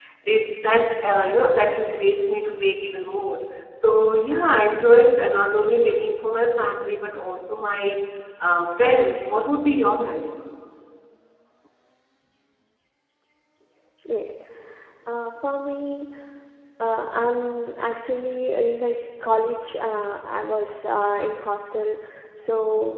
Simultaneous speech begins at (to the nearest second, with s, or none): none